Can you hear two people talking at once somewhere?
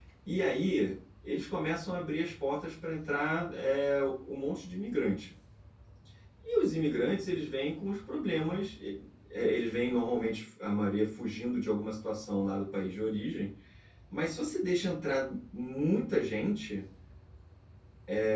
No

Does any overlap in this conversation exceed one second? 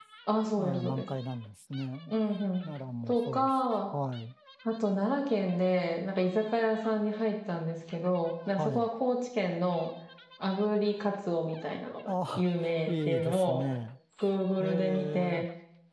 Yes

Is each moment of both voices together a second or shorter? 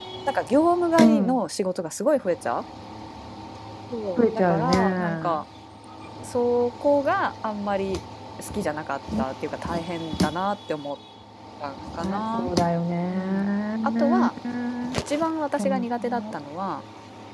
No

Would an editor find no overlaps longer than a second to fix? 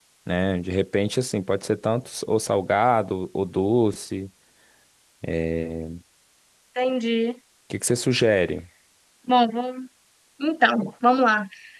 Yes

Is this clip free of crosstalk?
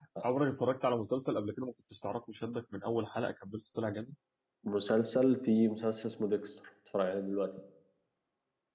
Yes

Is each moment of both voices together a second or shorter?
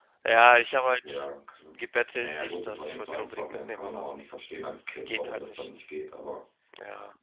No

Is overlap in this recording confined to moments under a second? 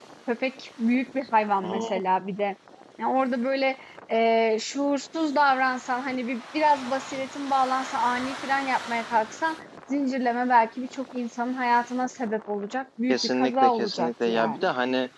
No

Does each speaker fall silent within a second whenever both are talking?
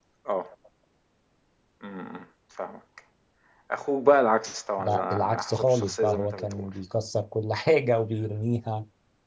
No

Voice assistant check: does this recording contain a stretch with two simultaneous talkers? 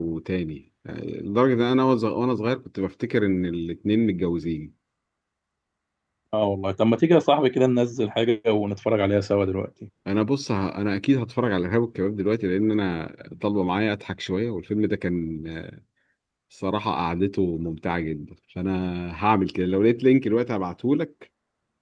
No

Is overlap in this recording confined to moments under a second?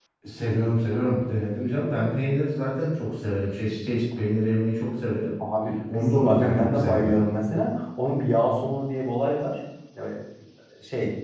No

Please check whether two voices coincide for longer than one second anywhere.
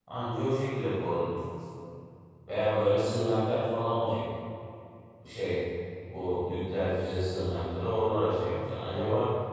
No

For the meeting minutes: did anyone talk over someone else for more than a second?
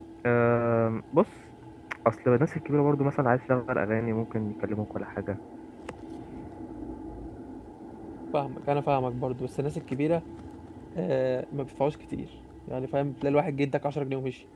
No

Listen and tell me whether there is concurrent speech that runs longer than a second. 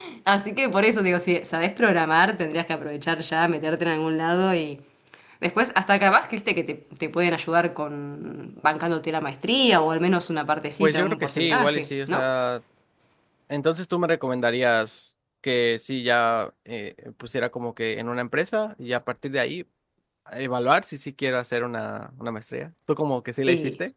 Yes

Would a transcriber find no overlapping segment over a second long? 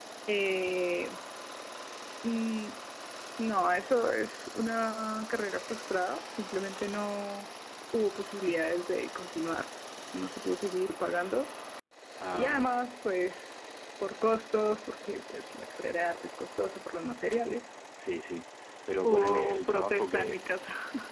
No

